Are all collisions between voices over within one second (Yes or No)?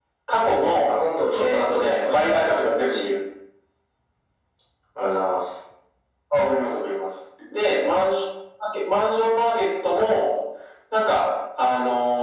No